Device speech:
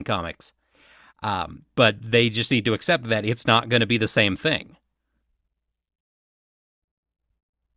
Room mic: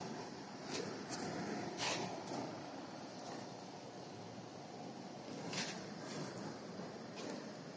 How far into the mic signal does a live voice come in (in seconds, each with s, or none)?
none